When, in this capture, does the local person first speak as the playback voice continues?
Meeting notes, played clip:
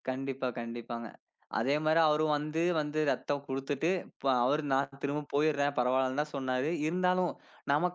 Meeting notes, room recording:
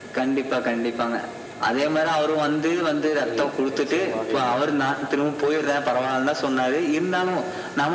3.3 s

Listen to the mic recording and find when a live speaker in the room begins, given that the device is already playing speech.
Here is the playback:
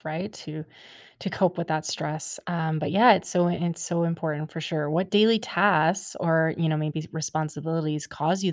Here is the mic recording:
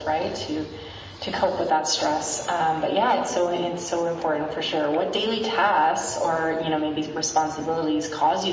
none

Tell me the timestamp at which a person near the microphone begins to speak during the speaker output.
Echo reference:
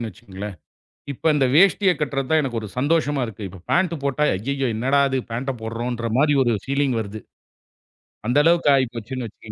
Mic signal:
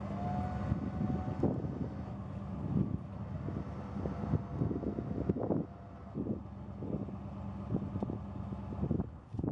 none

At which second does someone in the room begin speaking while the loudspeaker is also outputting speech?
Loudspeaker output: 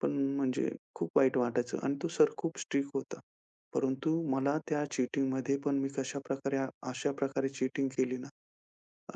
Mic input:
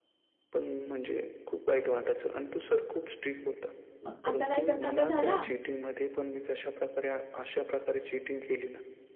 4.0 s

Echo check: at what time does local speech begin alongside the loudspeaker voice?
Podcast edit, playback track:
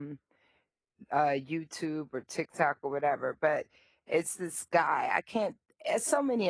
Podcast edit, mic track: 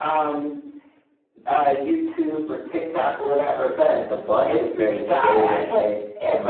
3.2 s

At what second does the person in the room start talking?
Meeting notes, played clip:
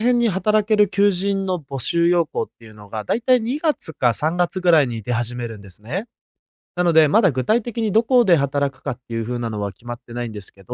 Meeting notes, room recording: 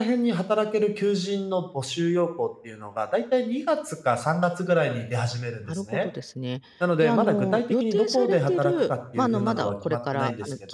5.7 s

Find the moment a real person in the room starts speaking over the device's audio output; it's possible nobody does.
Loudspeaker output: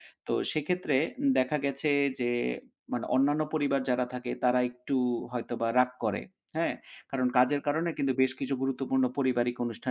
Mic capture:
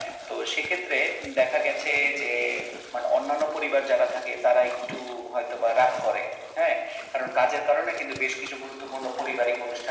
none

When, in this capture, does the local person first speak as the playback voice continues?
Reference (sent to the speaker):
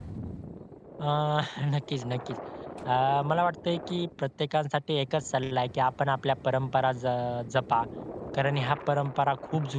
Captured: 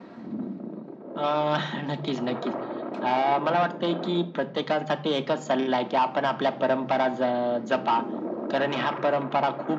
none

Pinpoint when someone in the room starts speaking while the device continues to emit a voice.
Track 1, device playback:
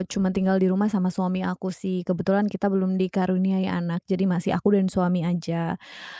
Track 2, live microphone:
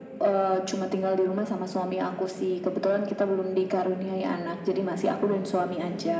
none

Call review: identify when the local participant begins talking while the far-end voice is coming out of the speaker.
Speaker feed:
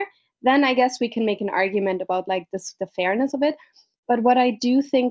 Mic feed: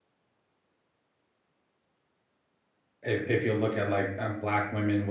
3.0 s

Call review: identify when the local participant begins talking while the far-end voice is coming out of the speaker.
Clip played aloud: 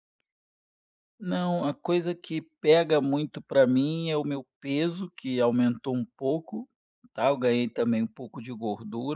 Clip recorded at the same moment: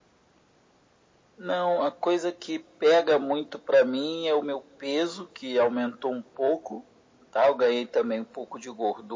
none

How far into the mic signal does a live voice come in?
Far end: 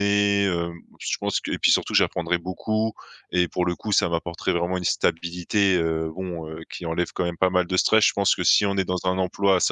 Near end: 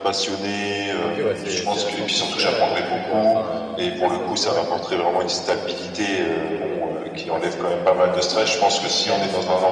1.0 s

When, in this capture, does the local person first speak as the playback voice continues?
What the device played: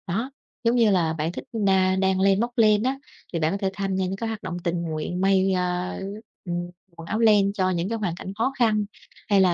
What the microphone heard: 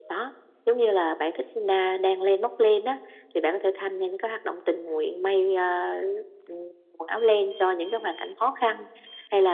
none

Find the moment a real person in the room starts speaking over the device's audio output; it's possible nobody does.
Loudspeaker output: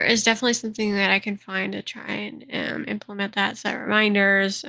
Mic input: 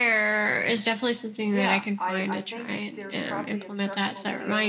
1.5 s

